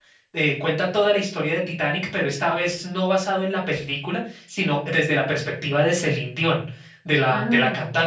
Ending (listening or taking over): listening